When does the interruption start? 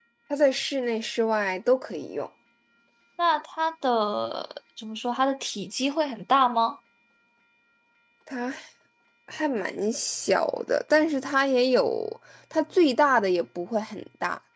none

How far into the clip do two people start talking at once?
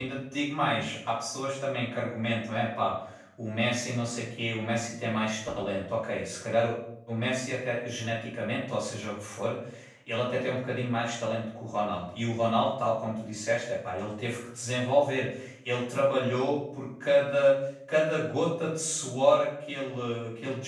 none

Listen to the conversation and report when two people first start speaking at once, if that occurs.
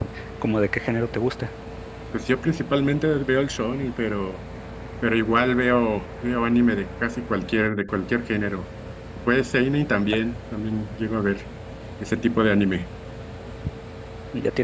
none

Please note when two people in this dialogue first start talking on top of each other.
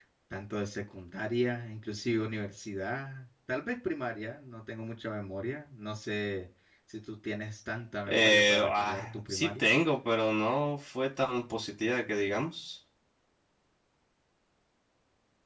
8.1 s

